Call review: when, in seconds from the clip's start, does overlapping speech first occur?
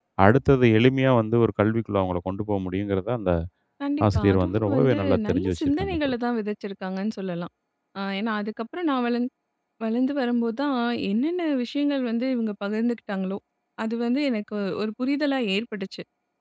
4.2 s

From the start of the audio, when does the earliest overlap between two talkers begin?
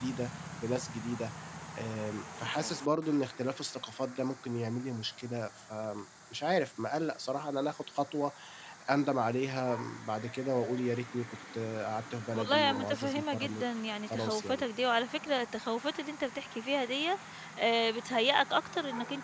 12.3 s

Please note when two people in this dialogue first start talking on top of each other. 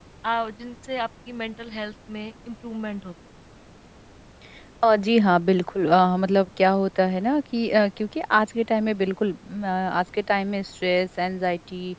none

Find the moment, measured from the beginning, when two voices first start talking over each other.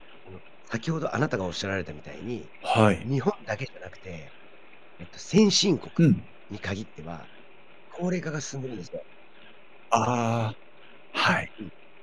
none

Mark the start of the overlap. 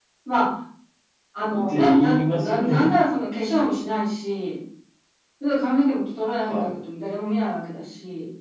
1.6 s

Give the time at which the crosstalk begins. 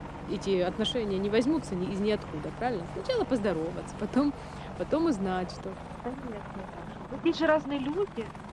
none

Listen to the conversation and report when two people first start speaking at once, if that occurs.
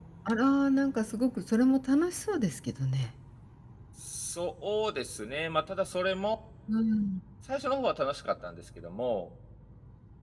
none

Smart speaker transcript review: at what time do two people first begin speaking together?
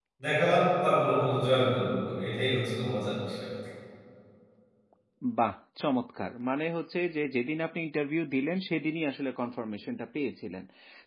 none

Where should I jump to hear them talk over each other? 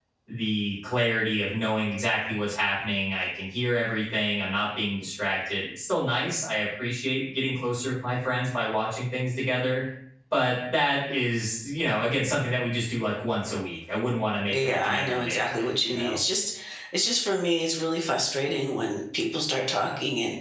14.5 s

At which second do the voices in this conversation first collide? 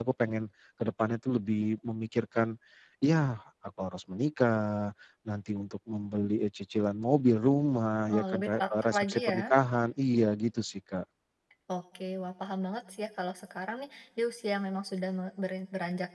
8.1 s

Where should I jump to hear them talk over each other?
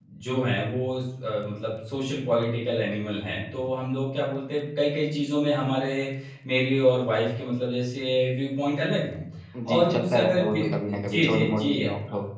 9.7 s

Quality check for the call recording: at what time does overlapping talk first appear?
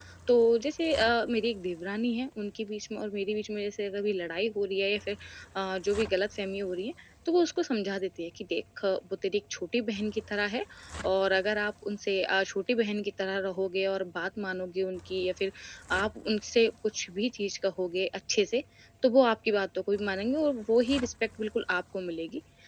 none

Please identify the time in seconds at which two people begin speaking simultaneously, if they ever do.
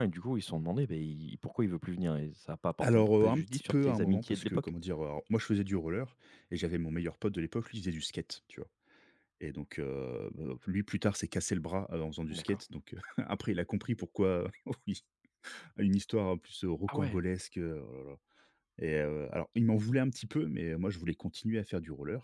2.8 s

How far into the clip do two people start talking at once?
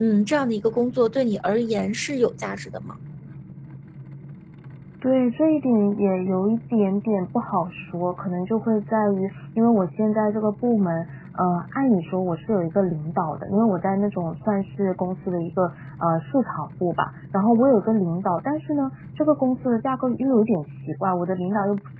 none

